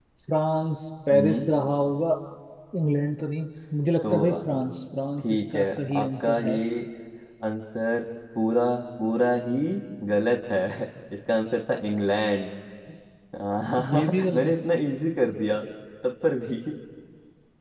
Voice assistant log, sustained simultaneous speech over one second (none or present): present